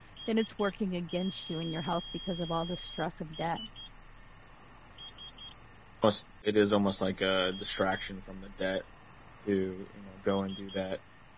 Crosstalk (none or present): none